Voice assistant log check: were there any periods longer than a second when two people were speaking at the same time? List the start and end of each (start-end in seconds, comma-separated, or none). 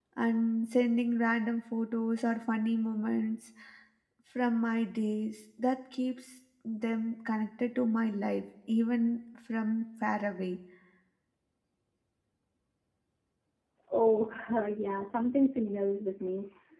none